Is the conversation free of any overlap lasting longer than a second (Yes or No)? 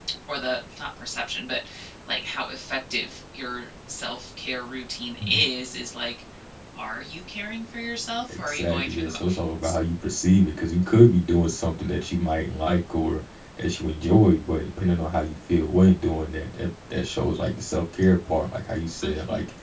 No